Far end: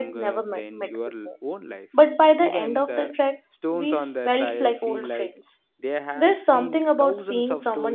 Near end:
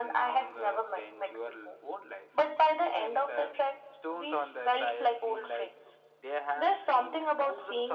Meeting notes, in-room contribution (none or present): none